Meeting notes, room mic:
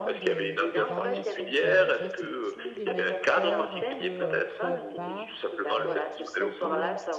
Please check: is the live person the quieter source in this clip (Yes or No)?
Yes